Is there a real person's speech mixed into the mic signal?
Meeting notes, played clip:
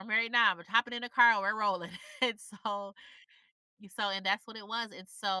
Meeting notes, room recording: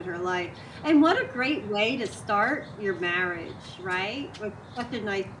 Yes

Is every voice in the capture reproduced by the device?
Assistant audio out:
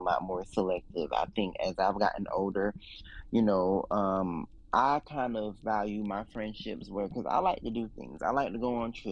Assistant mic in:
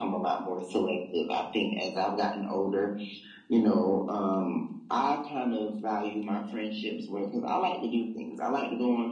Yes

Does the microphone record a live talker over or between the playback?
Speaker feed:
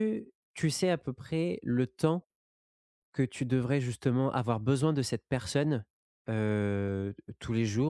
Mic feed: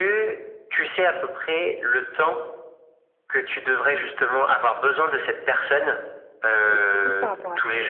Yes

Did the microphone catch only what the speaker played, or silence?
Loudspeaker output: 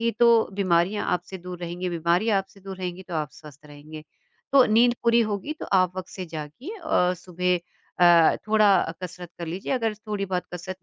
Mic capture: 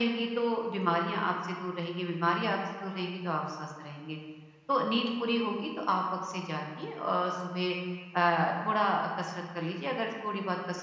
Yes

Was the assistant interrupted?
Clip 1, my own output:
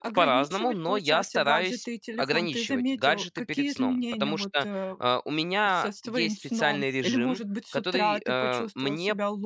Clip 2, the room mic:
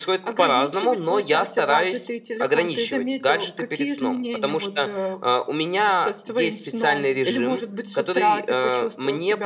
No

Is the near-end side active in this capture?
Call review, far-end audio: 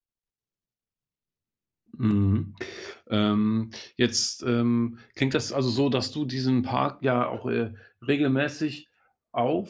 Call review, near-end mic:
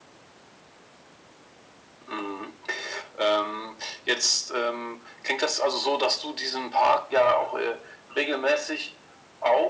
No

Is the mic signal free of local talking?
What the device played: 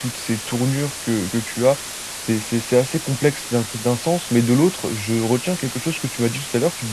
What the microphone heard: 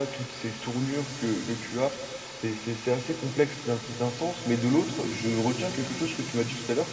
Yes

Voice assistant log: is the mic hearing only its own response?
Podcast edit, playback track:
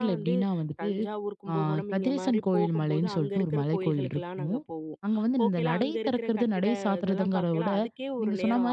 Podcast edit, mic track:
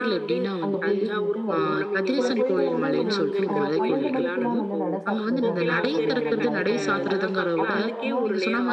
No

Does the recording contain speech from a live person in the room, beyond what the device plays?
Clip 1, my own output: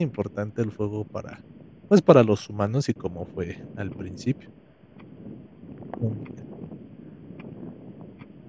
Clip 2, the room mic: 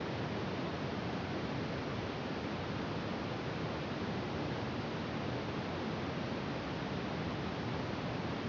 No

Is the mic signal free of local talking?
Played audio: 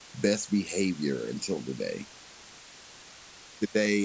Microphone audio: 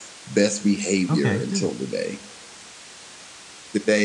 No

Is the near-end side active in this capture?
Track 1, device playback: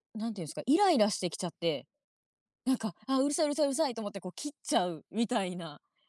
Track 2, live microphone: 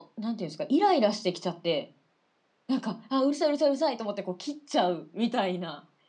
No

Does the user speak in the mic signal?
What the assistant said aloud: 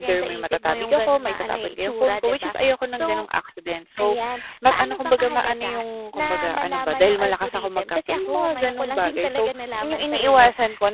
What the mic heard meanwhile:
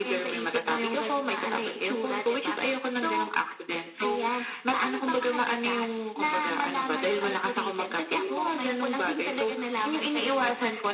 No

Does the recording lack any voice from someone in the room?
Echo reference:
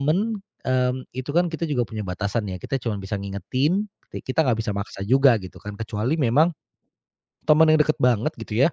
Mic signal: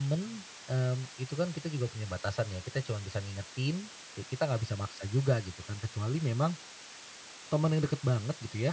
Yes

